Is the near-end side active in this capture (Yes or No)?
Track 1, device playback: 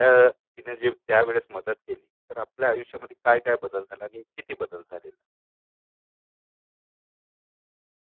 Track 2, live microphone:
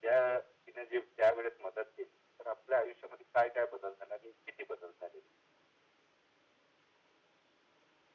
No